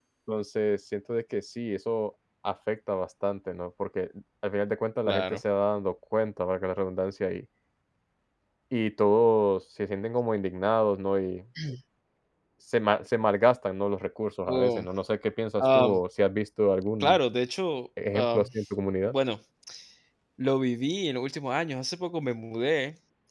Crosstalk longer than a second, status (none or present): none